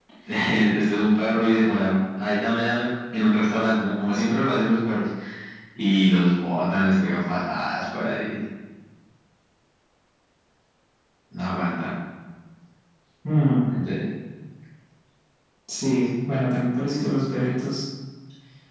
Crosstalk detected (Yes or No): No